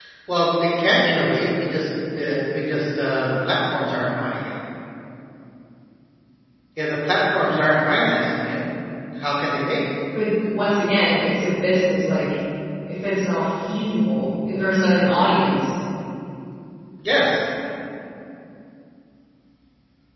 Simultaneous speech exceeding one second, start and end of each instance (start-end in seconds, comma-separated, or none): none